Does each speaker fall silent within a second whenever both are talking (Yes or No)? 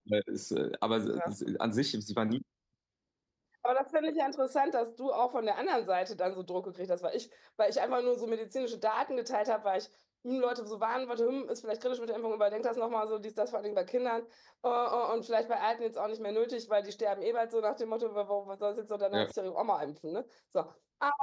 Yes